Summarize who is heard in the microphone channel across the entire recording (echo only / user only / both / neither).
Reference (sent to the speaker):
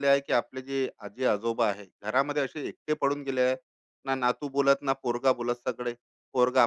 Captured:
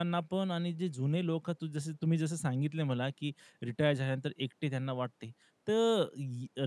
user only